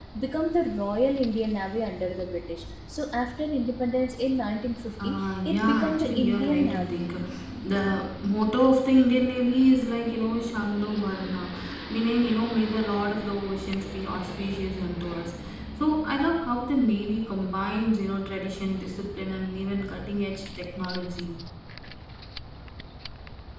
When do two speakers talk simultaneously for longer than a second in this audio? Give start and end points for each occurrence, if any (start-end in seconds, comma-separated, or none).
5.0-7.0